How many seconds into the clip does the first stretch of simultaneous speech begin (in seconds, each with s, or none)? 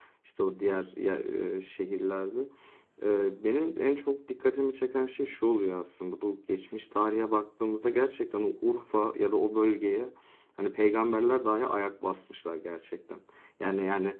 none